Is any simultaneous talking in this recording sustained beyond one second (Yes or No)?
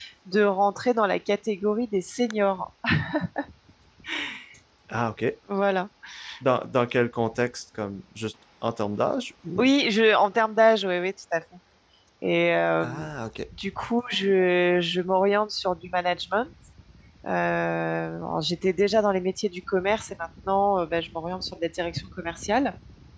No